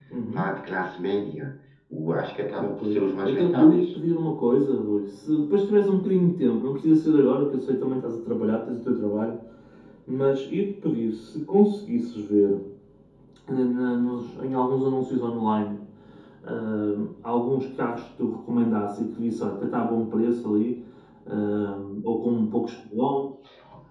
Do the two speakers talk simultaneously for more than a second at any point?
Yes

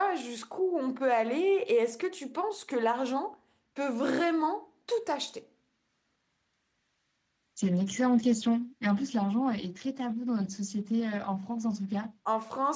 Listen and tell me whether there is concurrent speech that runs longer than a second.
No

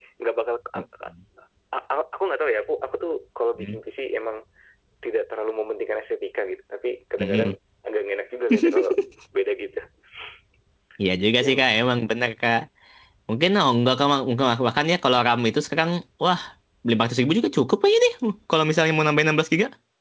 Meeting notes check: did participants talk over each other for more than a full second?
No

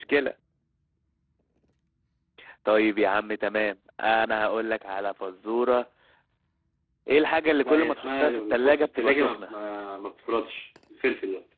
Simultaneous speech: Yes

